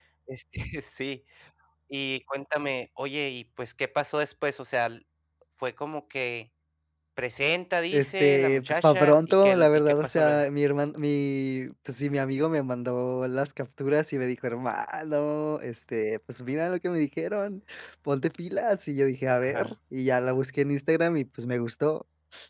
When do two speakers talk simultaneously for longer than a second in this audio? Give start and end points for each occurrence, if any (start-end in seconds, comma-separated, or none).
7.9-10.4